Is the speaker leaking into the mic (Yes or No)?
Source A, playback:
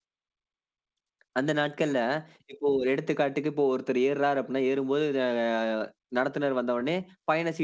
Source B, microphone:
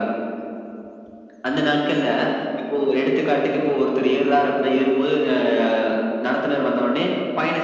Yes